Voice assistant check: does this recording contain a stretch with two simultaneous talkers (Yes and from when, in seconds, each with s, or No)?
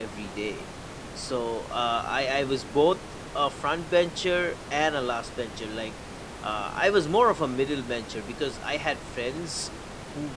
No